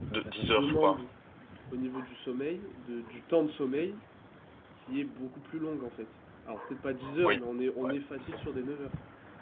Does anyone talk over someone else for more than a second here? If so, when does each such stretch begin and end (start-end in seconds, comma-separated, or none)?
none